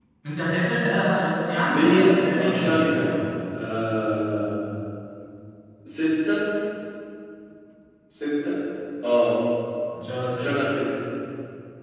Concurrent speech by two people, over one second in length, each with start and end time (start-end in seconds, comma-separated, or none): 1.7-3.2